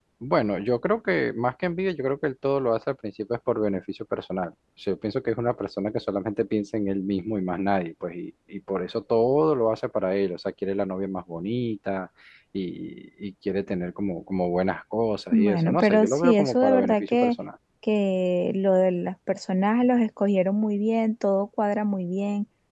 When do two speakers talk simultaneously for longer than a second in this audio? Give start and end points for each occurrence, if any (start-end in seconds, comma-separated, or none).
15.3-17.4